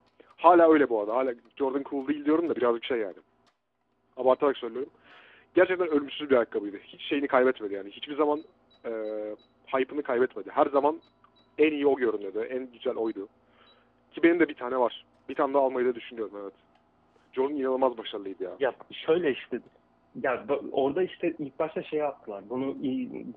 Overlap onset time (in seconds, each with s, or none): none